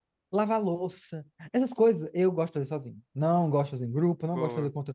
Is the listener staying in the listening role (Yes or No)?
Yes